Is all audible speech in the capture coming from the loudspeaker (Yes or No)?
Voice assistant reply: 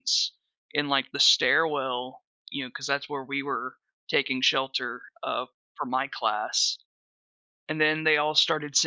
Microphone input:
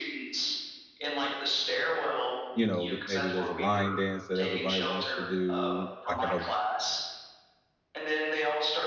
No